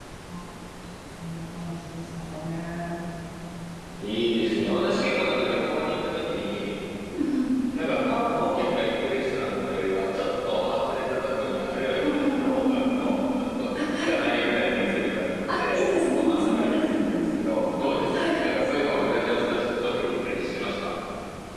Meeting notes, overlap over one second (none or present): present